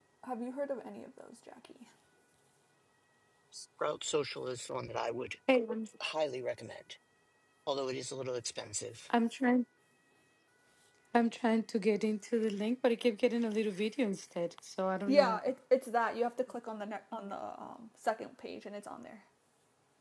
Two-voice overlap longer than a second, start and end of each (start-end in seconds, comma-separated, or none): none